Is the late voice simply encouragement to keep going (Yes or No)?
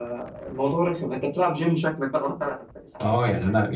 No